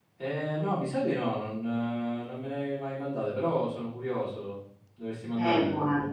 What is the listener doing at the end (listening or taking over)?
taking over